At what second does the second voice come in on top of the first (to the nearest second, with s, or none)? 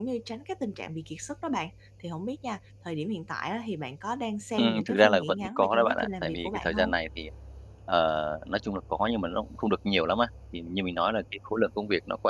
5 s